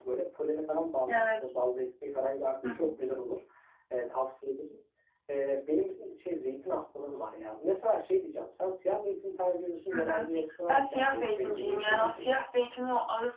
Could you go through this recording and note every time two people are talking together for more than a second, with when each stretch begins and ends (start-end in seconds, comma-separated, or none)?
10.7-12.4